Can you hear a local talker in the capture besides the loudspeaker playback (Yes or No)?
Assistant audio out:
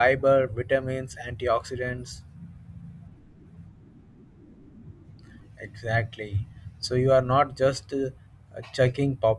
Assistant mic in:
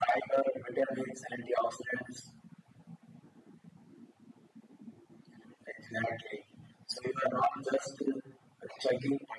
No